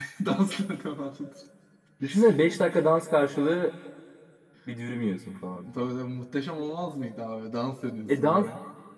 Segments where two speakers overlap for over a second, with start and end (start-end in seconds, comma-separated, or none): none